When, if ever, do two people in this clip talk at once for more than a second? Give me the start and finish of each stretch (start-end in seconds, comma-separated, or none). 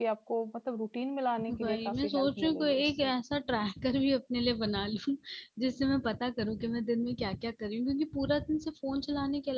1.6-3.1